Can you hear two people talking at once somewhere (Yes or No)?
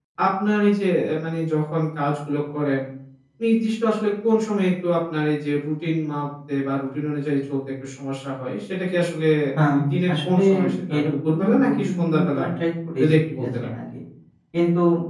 Yes